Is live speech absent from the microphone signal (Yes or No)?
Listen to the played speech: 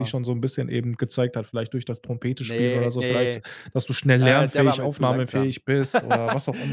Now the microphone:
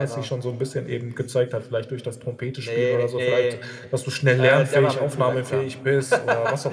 Yes